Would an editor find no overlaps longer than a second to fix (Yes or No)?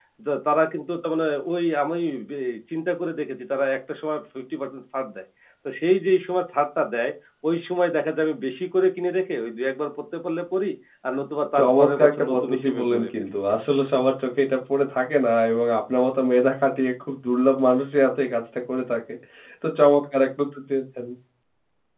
No